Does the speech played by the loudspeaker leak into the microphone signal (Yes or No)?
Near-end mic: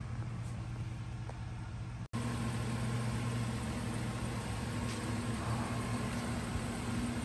No